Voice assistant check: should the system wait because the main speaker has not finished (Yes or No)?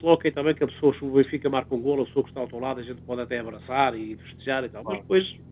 Yes